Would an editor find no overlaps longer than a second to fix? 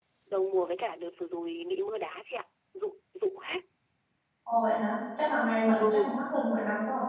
Yes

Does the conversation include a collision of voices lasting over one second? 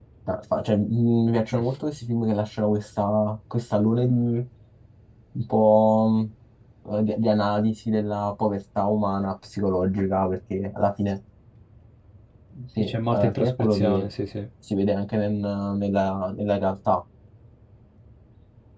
Yes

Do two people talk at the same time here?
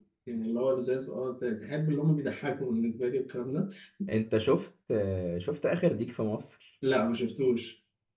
No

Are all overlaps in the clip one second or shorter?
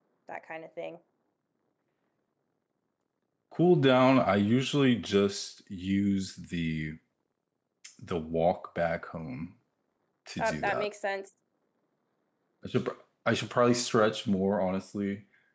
Yes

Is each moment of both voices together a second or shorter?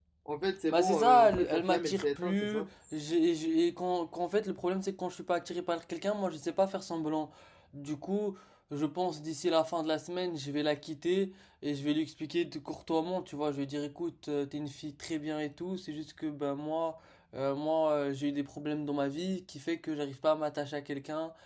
No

